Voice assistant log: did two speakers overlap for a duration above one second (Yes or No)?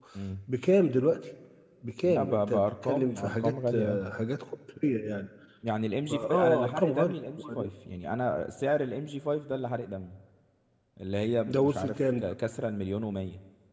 Yes